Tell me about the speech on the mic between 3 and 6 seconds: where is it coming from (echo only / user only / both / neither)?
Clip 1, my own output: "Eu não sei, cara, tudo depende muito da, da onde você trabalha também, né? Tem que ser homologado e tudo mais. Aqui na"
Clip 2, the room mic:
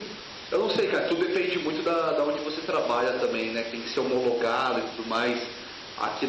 echo only